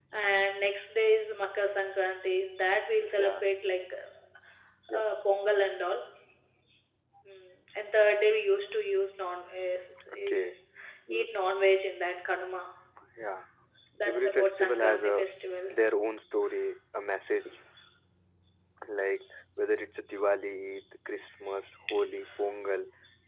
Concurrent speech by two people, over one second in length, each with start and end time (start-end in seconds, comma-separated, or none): 14.1-15.3